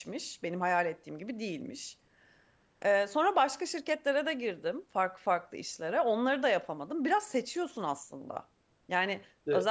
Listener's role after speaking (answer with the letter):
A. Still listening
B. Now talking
A